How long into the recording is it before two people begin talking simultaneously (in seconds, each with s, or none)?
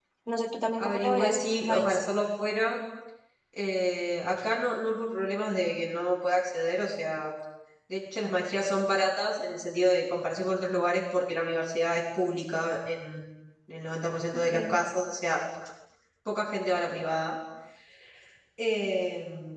0.8 s